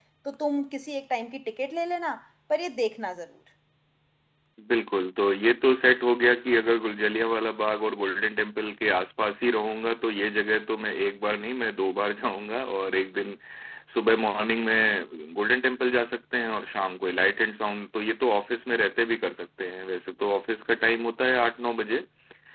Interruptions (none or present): none